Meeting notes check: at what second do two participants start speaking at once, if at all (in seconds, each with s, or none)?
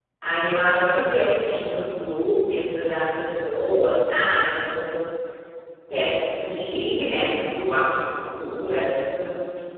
none